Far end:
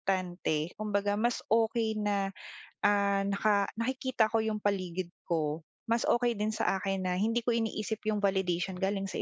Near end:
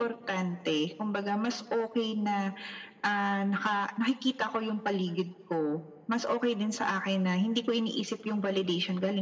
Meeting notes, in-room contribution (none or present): none